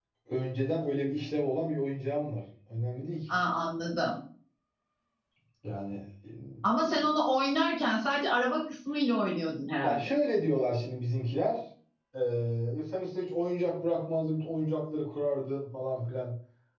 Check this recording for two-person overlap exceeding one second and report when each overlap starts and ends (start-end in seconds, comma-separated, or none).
none